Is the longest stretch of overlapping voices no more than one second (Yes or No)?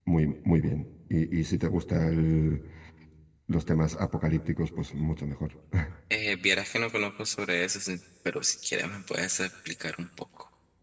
Yes